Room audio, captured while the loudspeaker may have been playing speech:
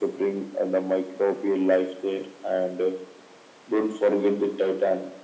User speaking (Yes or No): No